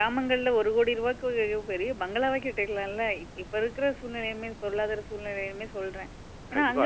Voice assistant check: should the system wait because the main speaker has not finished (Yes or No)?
No